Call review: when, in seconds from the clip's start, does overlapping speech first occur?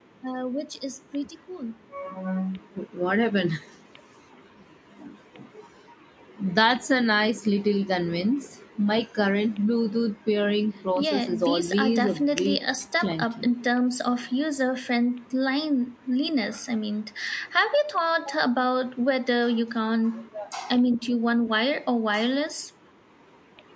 11.0 s

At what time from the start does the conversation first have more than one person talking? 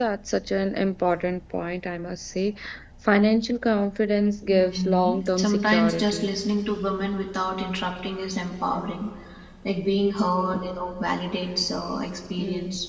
4.5 s

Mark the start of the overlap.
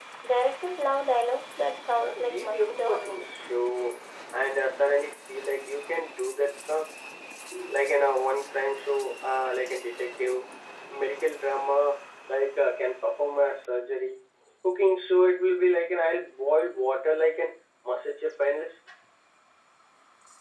2.0 s

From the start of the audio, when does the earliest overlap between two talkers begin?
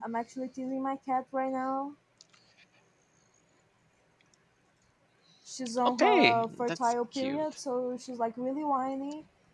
6.0 s

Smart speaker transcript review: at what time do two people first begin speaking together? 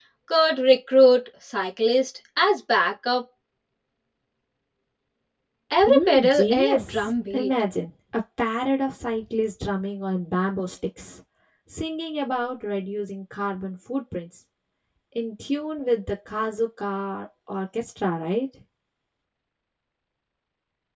5.8 s

